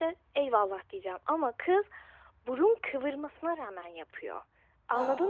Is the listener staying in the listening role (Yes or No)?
Yes